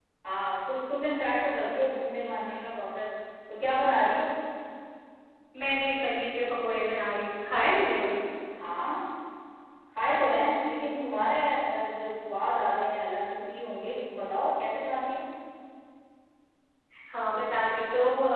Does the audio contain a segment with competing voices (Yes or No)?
No